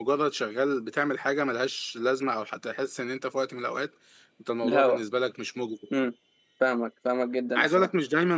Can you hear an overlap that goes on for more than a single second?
No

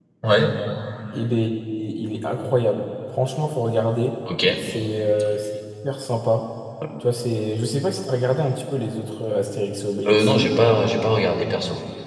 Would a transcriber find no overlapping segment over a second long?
Yes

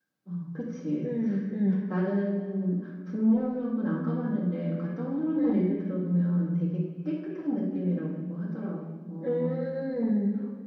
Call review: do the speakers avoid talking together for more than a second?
Yes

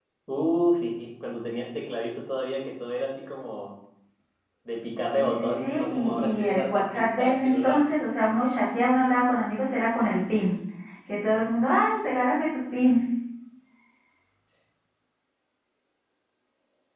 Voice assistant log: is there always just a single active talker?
No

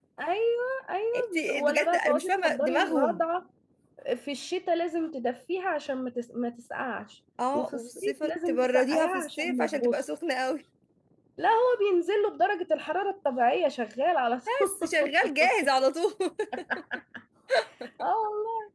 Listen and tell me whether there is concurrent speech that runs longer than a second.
Yes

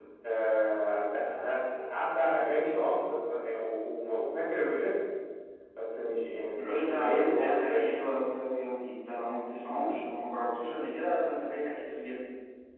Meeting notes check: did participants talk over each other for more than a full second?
Yes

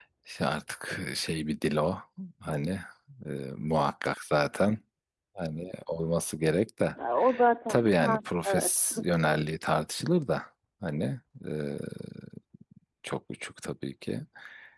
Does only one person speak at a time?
No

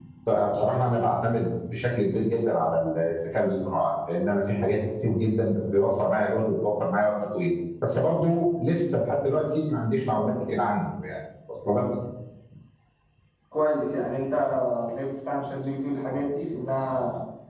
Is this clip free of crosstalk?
Yes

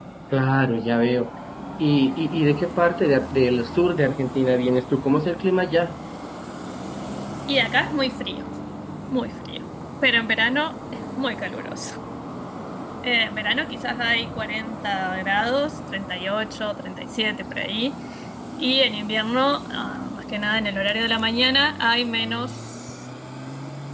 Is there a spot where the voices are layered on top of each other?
No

